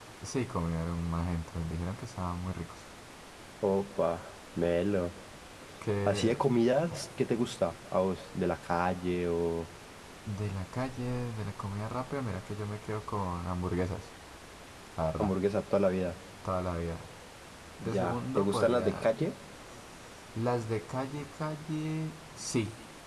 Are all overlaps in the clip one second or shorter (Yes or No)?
No